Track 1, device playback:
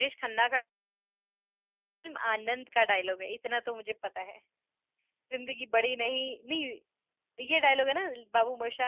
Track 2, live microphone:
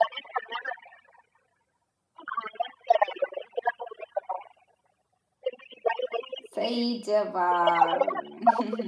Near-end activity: present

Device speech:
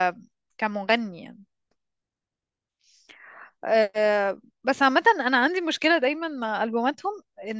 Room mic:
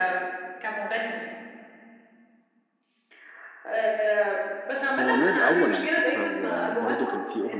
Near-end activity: present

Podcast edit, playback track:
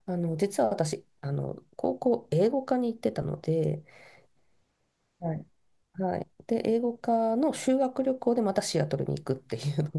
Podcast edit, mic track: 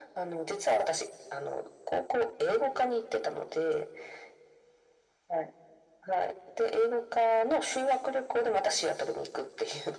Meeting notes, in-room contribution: none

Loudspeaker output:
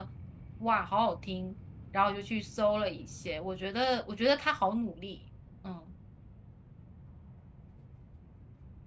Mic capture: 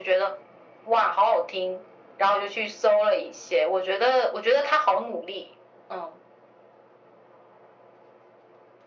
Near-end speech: none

